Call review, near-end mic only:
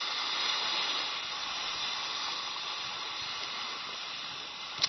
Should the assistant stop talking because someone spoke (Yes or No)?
No